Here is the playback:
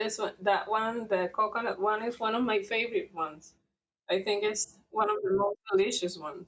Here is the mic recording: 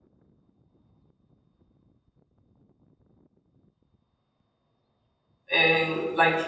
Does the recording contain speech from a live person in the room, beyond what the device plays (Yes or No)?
Yes